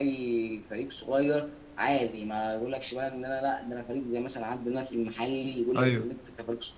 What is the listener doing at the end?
listening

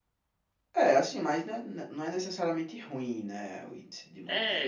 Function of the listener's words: taking over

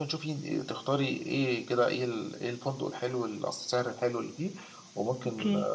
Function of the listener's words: listening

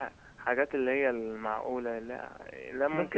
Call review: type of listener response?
taking over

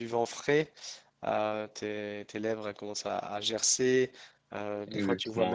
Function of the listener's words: listening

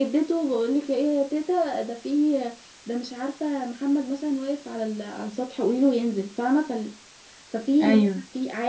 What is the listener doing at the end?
listening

